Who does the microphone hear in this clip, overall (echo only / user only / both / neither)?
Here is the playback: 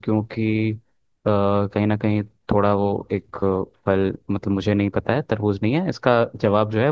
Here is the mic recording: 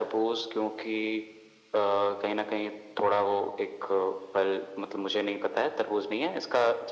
echo only